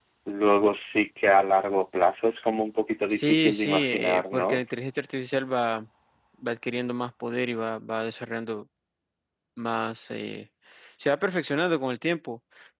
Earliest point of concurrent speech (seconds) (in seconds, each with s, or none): 3.1 s